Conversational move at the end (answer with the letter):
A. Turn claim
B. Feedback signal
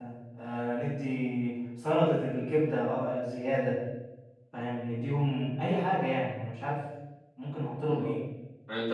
A